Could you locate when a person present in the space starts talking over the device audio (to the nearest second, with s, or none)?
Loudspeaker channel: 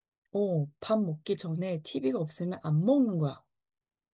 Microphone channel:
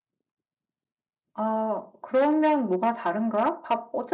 1 s